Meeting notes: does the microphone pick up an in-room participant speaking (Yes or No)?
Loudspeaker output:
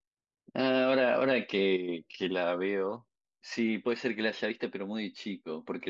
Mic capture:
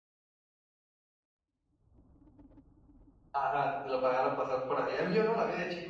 Yes